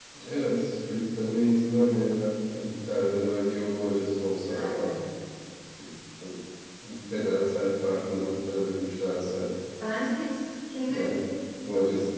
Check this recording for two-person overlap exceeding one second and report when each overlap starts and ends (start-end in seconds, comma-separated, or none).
none